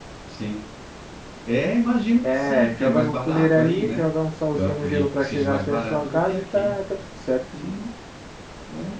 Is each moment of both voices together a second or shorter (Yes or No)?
No